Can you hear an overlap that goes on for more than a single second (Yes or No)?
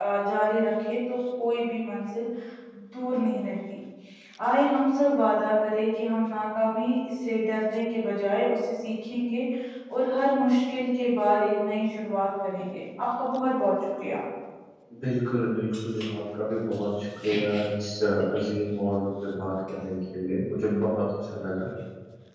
No